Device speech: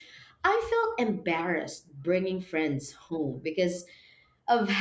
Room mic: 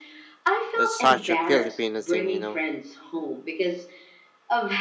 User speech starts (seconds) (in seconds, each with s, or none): 0.7 s